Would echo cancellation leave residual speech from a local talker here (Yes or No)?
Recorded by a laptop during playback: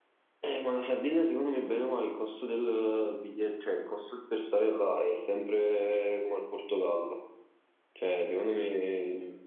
Yes